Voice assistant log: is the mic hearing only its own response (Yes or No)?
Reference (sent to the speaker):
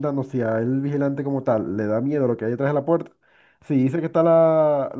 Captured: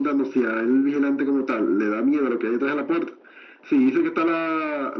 Yes